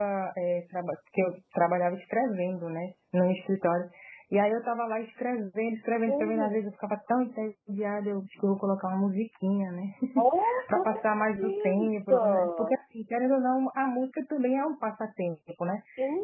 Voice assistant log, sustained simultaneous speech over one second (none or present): present